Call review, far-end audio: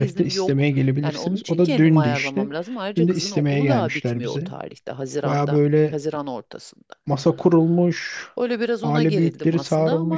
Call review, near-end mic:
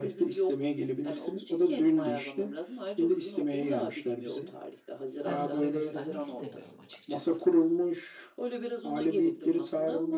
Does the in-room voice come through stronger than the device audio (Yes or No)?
No